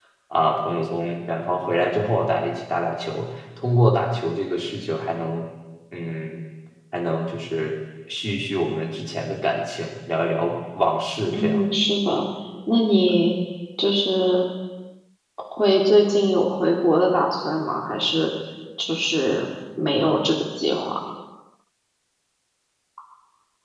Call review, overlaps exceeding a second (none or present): none